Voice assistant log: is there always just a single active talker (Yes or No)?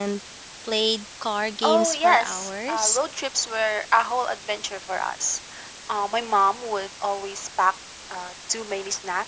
No